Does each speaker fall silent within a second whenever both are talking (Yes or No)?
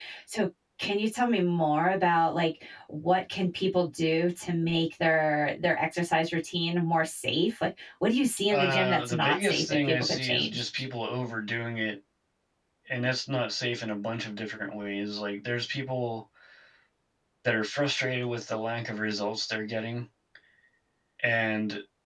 No